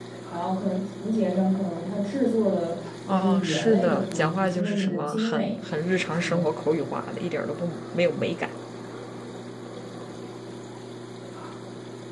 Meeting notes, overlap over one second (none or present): present